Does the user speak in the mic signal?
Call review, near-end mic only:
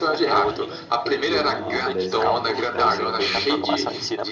Yes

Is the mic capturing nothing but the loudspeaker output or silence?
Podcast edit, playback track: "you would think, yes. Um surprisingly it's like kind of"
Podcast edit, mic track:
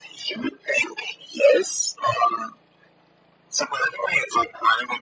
Yes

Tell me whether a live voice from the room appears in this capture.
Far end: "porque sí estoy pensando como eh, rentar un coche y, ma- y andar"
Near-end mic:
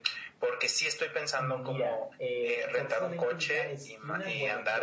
Yes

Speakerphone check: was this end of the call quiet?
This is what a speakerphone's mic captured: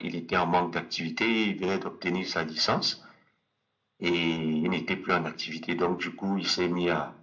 Yes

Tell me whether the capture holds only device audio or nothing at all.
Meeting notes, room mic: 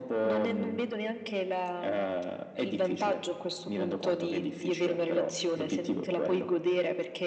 Yes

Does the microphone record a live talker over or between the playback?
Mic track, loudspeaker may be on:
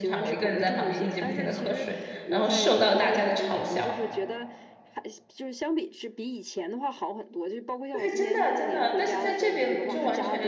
Yes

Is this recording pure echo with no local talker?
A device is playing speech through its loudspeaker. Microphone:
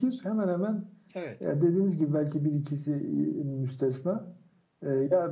No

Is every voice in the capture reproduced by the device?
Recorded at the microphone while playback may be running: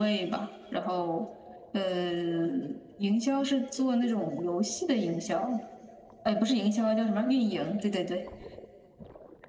Yes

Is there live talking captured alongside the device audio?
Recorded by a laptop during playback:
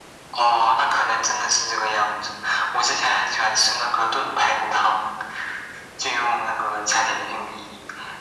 No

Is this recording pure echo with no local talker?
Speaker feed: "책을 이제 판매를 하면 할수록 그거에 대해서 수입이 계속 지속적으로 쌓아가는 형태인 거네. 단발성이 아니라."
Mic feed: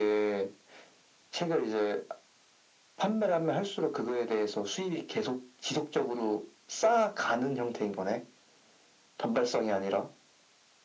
Yes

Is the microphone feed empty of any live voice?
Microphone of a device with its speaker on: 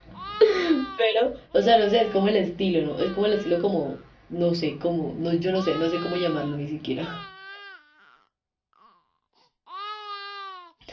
No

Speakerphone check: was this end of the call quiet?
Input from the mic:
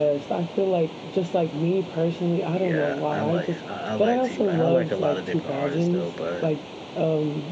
No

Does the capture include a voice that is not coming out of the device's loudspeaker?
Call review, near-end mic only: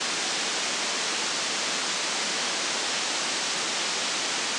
No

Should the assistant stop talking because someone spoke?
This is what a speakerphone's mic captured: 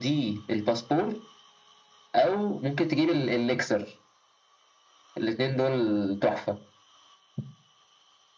No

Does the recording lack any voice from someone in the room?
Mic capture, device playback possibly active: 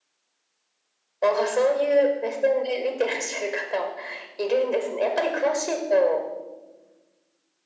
Yes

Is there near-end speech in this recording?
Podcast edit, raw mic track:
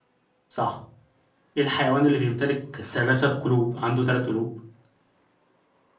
Yes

